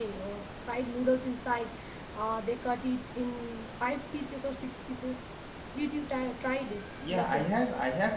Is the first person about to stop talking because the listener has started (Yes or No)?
Yes